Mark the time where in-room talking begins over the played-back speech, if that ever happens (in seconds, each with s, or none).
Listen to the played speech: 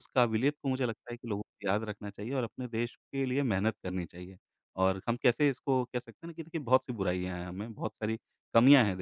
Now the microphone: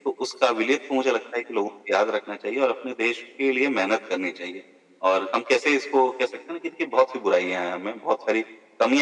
none